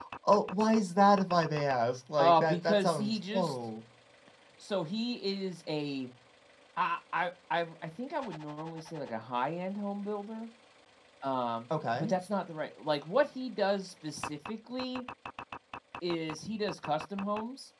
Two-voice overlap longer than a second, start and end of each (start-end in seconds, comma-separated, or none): 2.2-3.6